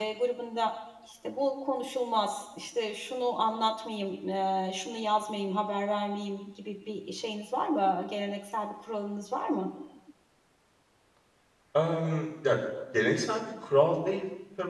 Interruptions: none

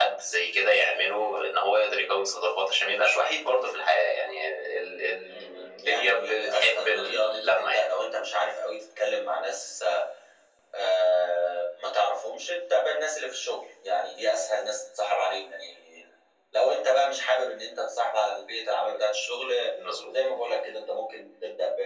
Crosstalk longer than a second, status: present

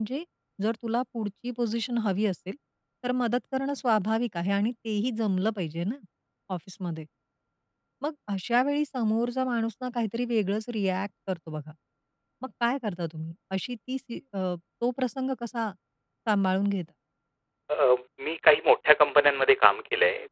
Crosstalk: none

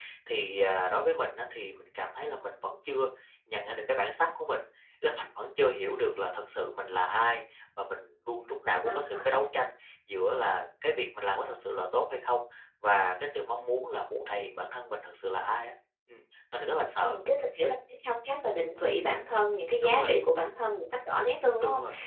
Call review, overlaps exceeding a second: none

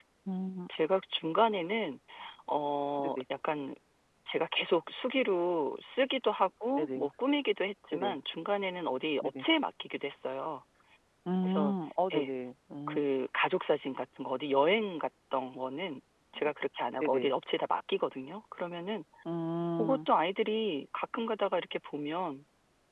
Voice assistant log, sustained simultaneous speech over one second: none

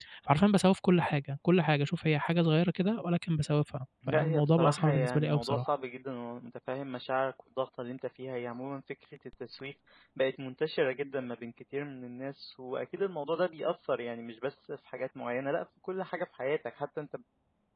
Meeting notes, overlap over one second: present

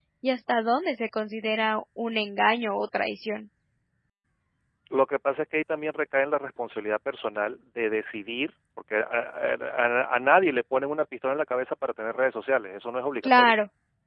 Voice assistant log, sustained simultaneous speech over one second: none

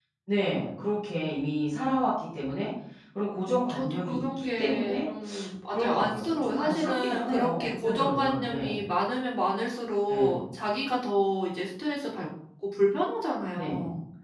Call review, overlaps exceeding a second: present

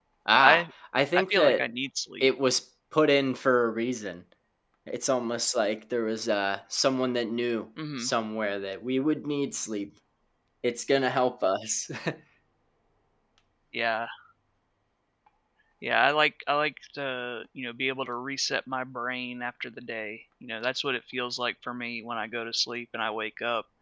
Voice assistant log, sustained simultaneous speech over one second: none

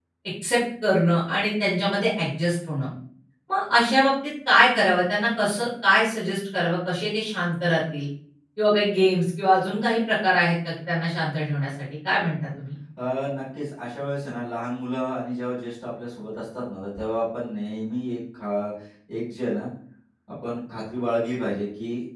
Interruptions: none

